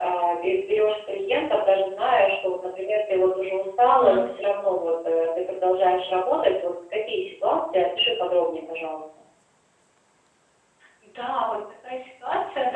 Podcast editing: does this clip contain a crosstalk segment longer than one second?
No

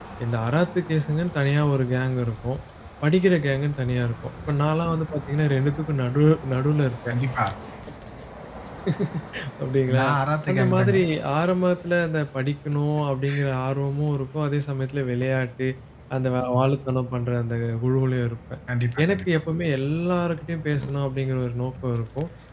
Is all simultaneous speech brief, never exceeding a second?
Yes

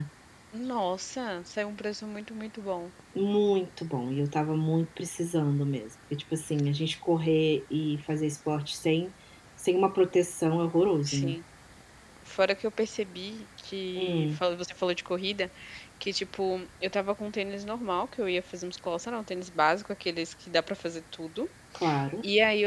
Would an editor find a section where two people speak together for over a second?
No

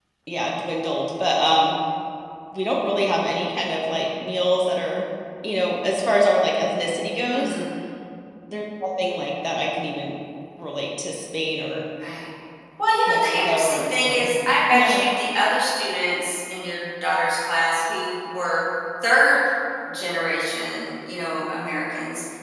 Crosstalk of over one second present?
Yes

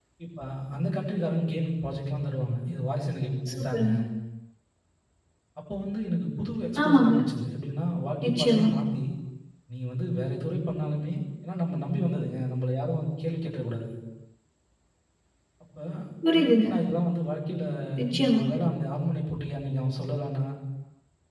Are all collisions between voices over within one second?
Yes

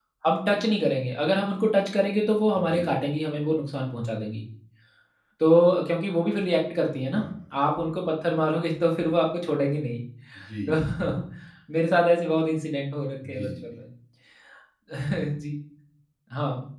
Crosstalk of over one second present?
No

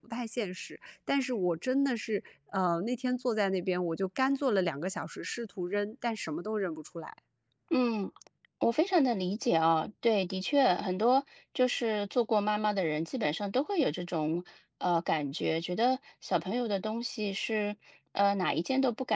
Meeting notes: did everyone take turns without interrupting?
Yes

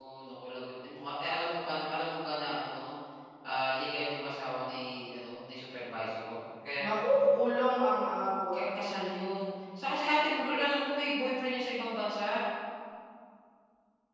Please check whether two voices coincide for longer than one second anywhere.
No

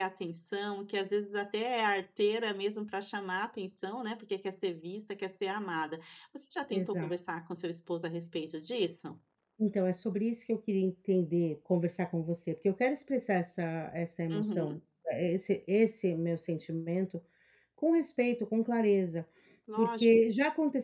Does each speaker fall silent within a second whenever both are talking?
Yes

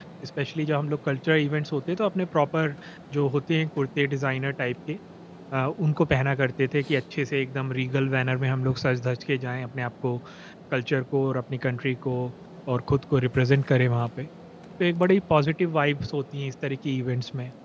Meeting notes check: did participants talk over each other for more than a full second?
No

